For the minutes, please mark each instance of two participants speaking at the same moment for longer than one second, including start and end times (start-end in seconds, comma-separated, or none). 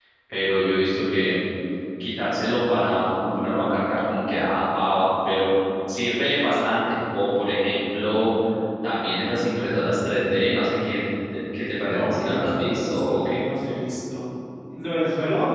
11.8-13.4